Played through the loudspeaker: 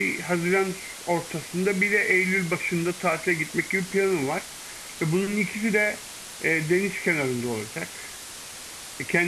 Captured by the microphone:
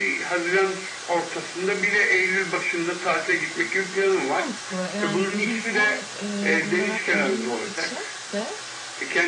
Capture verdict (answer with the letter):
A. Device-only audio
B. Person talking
B